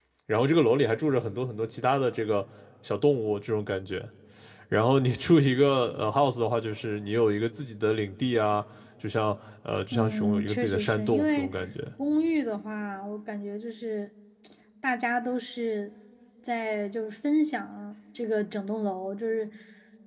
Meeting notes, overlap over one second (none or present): present